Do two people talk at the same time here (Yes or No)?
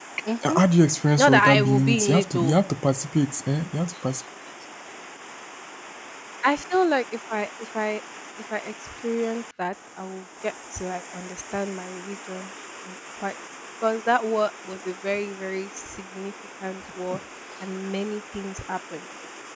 Yes